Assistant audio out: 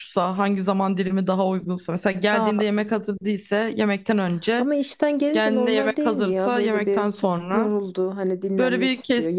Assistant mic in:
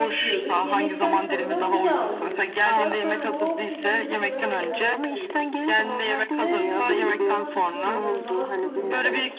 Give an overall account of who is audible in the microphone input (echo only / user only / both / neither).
both